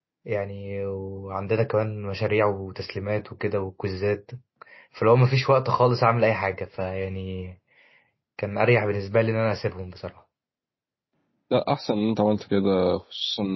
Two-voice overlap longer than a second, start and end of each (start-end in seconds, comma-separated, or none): none